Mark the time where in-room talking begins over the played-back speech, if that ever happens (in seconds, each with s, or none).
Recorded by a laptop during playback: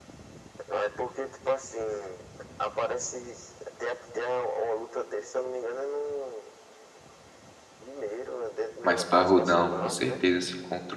8.8 s